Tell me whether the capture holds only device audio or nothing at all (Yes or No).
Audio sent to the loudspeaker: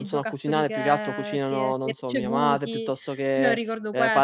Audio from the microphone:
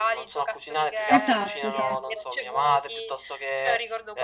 No